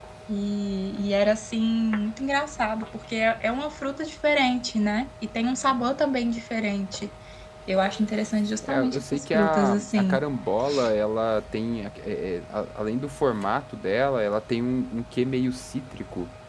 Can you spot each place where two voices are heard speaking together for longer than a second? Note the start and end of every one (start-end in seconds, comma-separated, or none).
8.6-10.2